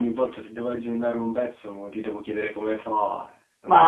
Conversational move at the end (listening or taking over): taking over